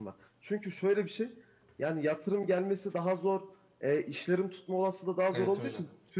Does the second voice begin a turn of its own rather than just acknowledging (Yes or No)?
No